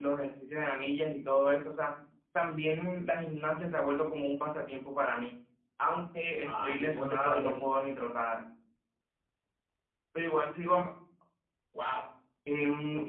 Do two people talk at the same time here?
Yes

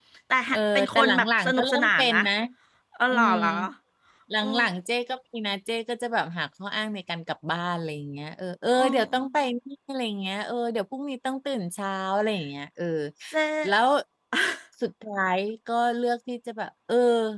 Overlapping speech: Yes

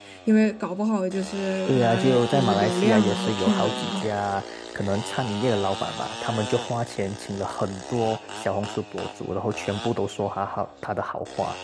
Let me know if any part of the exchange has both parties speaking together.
Yes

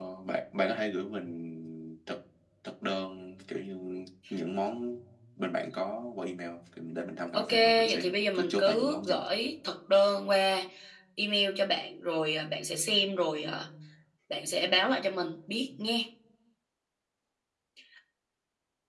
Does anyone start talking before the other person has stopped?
Yes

